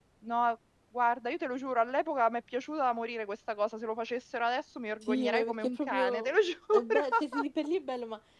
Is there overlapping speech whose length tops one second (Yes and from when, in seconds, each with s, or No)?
Yes, from 5.0 s